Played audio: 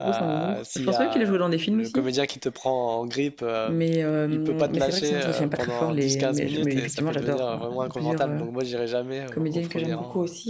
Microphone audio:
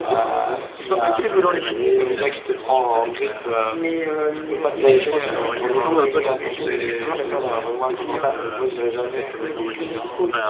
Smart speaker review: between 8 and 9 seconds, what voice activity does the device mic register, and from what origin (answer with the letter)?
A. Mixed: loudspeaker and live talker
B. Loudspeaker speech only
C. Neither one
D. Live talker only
A